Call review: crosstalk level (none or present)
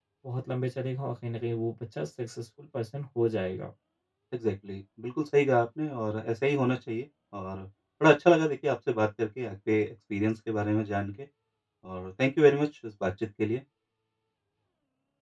none